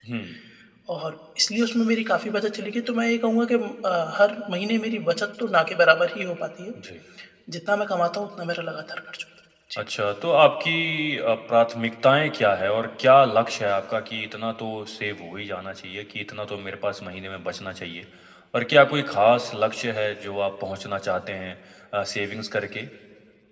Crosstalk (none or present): none